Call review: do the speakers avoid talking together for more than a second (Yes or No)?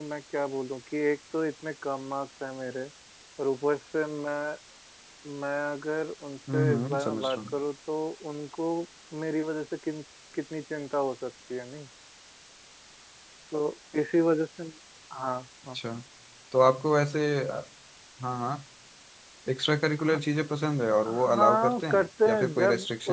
No